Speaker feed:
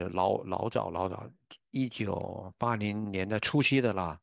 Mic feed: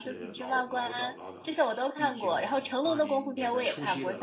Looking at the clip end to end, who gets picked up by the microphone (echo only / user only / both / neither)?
both